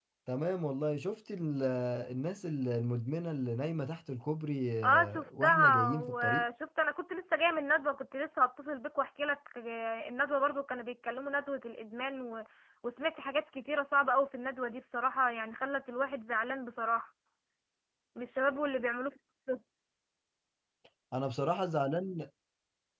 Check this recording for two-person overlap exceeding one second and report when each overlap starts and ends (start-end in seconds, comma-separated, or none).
4.8-6.5